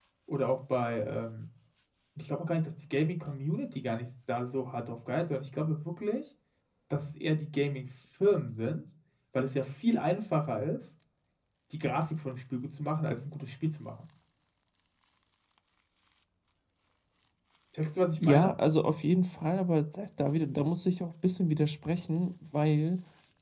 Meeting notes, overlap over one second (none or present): none